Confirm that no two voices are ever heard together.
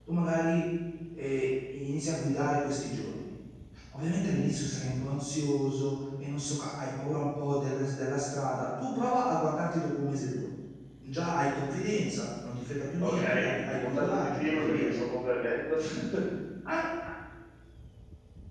No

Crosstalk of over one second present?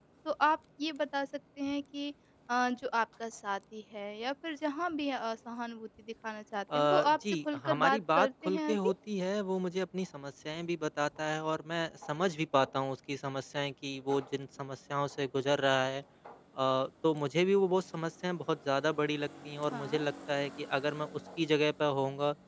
Yes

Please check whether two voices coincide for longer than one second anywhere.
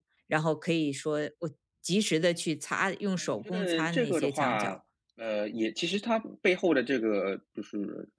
Yes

